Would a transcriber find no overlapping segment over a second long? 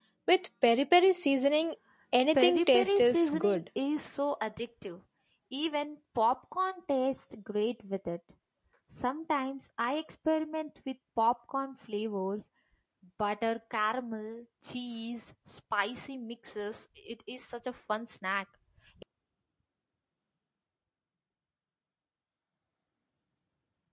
No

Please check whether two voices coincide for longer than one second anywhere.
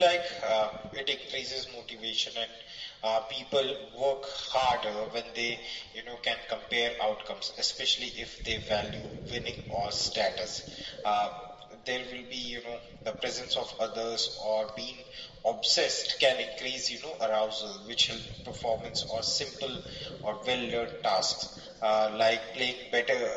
No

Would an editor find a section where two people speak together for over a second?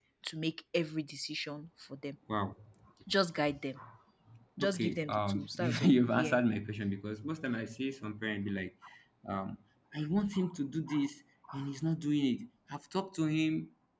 Yes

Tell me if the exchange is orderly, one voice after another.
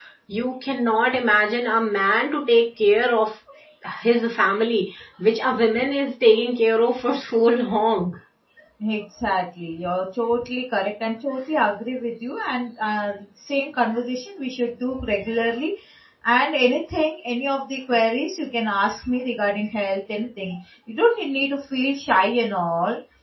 Yes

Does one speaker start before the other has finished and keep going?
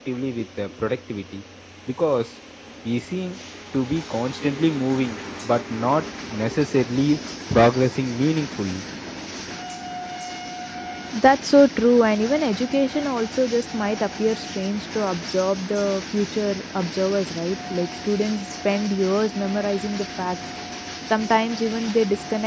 No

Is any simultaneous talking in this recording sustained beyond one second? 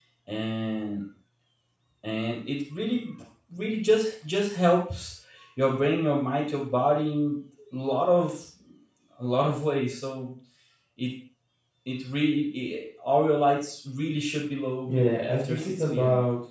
Yes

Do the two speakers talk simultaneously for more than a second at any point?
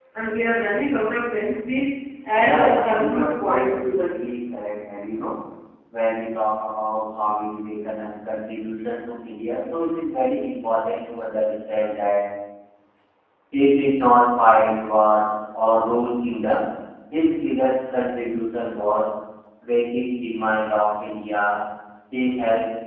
Yes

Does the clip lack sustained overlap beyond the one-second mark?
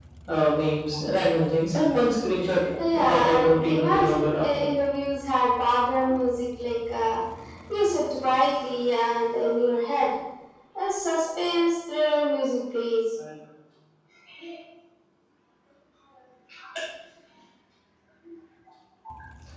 No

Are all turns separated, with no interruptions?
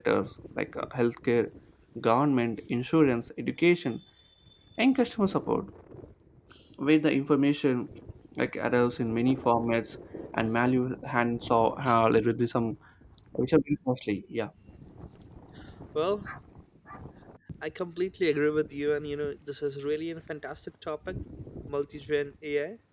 Yes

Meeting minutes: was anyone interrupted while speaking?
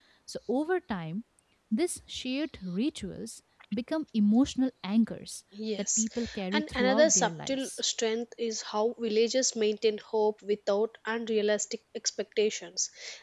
Yes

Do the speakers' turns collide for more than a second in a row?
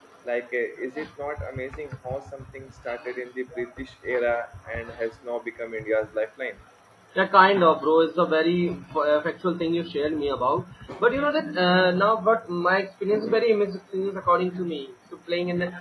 No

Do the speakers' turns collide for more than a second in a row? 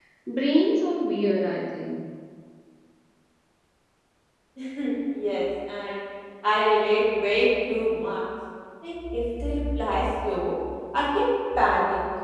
No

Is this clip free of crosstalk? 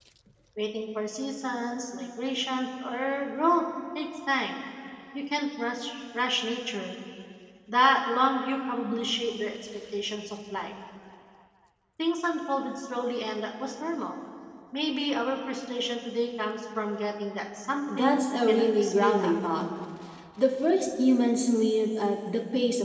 No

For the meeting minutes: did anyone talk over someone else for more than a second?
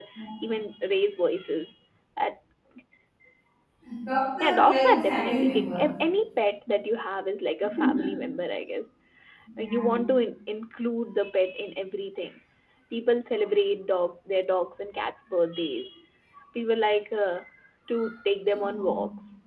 Yes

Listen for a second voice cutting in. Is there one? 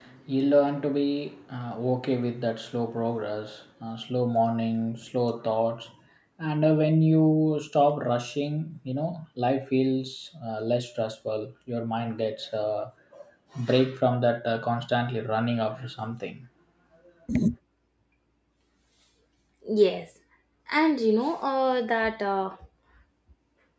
No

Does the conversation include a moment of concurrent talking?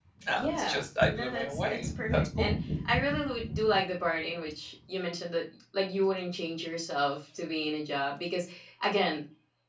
Yes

